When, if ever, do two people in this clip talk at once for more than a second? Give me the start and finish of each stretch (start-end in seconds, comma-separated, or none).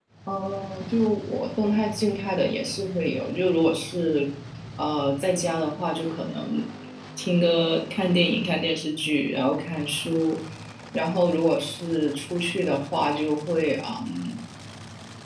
none